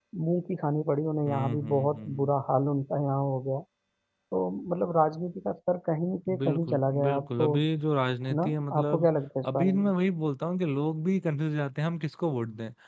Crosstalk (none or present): present